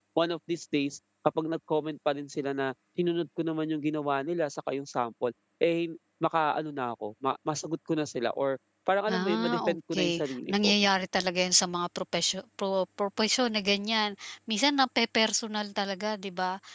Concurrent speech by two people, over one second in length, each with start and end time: 9.1-10.7

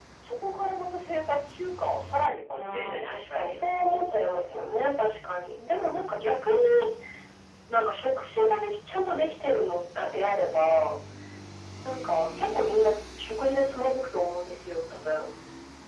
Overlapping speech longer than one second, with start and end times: 2.5-4.6

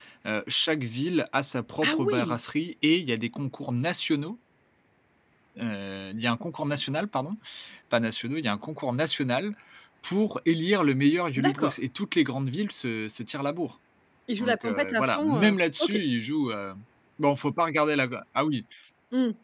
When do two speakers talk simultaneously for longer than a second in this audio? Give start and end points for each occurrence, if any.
14.4-16.0

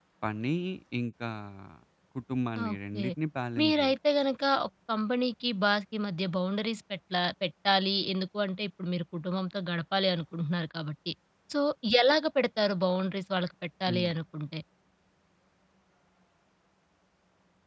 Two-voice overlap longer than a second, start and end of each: none

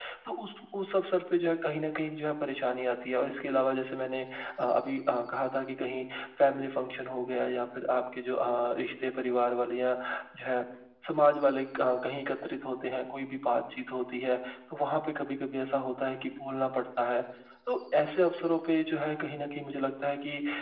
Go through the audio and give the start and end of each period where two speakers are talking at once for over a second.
none

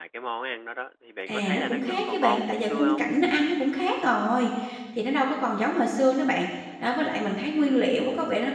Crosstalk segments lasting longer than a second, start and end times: 1.3-3.0

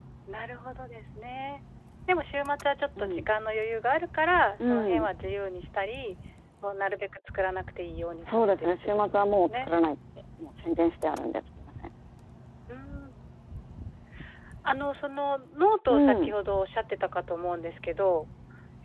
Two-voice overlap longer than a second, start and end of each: 8.2-9.7

